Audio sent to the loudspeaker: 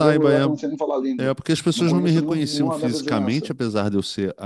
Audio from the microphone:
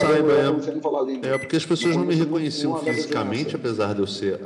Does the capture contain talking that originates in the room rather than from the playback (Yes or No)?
No